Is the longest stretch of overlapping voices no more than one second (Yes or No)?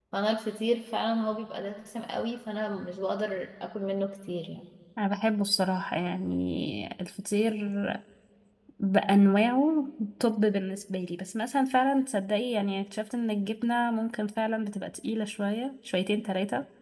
Yes